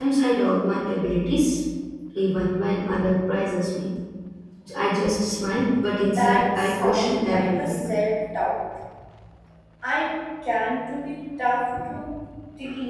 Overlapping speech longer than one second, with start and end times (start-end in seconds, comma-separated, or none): 6.1-7.8